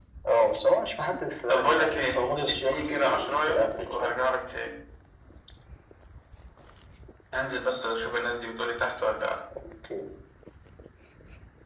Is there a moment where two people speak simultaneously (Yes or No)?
Yes